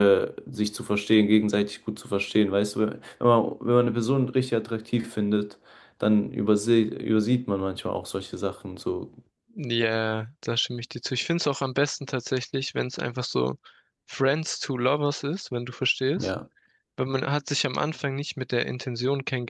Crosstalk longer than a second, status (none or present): none